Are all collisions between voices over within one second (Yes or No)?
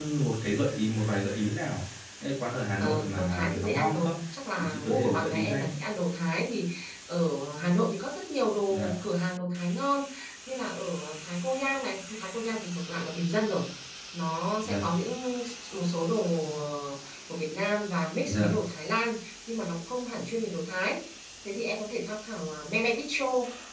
No